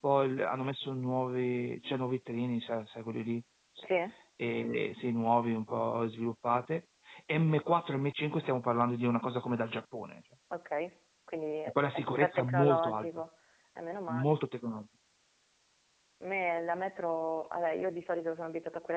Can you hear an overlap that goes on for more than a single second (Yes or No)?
Yes